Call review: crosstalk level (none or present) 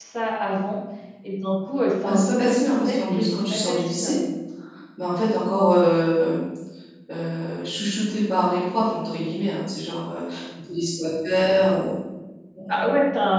present